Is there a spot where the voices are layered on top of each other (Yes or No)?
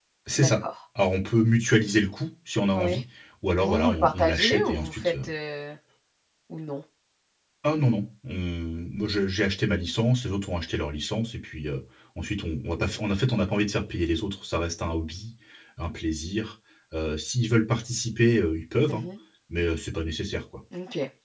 Yes